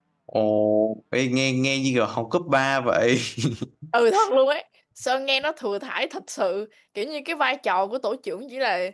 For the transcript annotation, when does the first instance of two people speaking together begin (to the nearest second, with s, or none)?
none